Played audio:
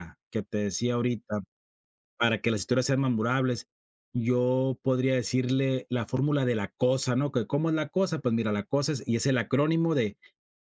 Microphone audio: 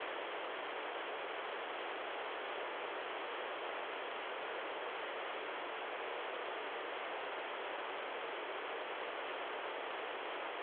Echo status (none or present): none